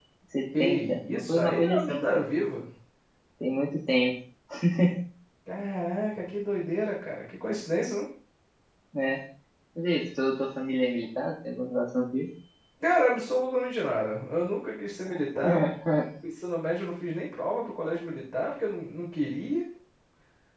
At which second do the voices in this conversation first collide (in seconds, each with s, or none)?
0.6 s